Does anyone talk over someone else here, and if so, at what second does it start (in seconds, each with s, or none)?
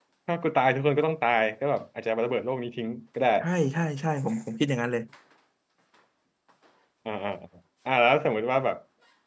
none